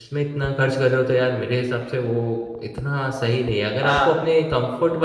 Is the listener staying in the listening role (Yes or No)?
Yes